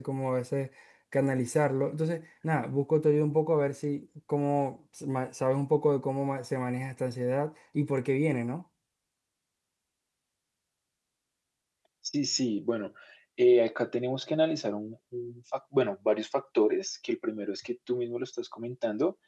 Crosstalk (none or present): none